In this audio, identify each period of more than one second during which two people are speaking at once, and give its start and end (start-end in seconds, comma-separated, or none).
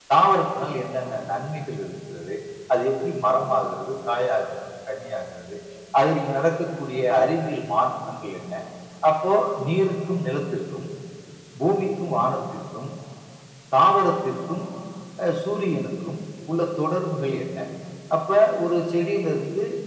none